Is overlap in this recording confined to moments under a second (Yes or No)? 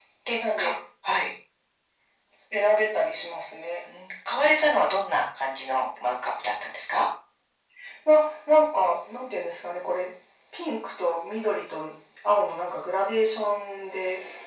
Yes